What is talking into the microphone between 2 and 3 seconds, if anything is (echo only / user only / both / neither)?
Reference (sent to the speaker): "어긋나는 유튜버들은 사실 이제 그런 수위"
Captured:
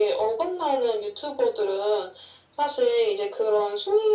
echo only